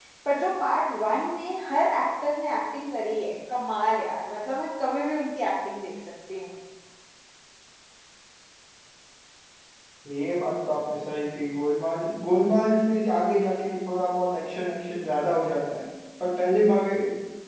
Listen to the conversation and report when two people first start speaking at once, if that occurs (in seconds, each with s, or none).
none